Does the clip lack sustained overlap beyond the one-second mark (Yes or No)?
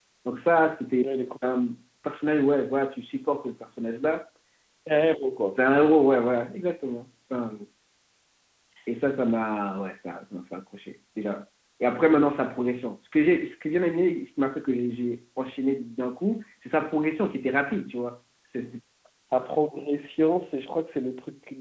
Yes